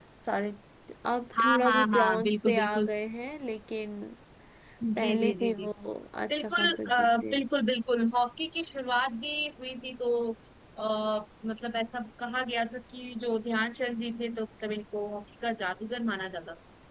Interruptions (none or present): present